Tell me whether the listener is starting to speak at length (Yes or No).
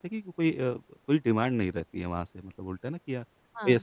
No